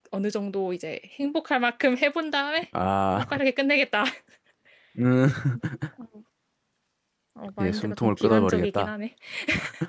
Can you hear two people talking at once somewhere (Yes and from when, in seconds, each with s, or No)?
Yes, from 7.6 s